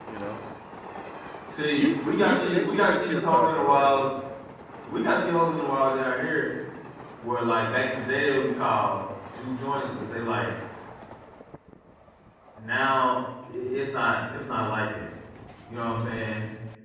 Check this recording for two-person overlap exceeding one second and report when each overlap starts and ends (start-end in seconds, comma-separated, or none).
1.7-4.2